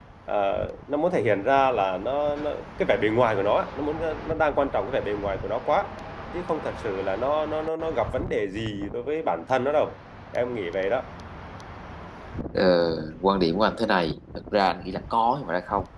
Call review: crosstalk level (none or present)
none